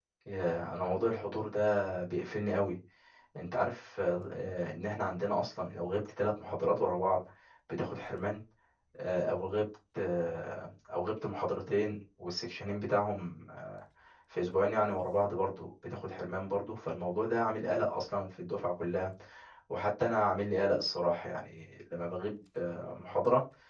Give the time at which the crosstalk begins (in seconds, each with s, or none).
none